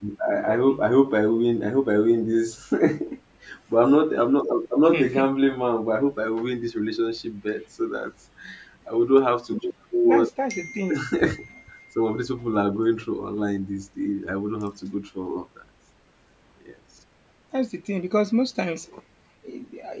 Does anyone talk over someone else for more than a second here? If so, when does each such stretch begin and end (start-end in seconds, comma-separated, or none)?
none